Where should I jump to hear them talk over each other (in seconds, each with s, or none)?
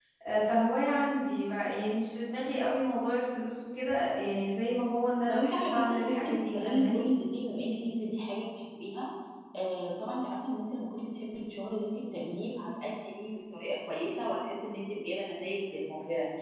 5.3 s